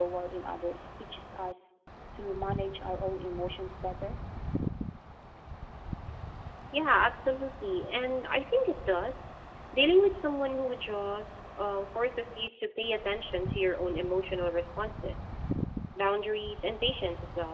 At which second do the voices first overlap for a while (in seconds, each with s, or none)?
none